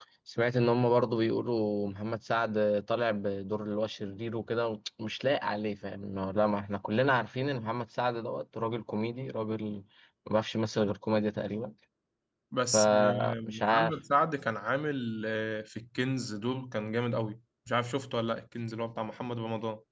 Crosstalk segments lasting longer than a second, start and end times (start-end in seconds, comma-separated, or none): 12.7-13.9